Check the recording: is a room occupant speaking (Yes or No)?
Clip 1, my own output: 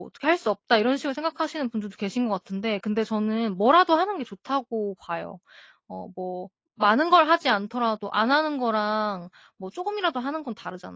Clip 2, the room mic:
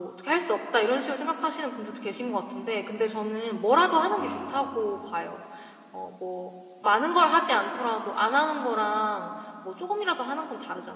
Yes